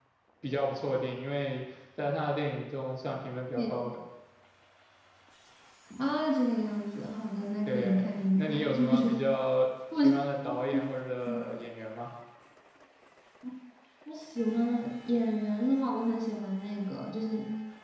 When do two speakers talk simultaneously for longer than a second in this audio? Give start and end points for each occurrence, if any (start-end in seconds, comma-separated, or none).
7.7-9.2